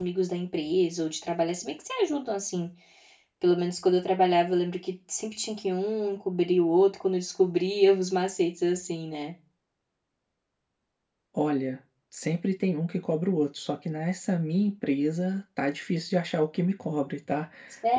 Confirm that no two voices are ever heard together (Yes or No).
Yes